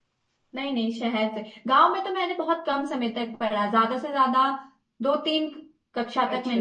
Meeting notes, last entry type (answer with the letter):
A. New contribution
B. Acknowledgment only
B